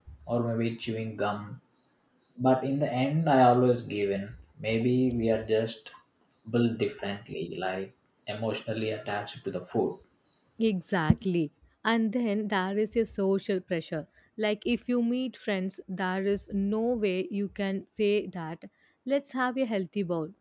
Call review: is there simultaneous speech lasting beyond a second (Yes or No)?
No